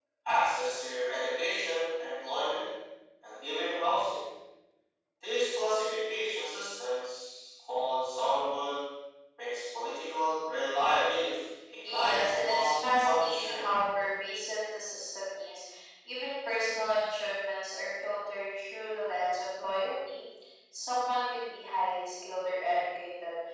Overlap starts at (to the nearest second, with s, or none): 12 s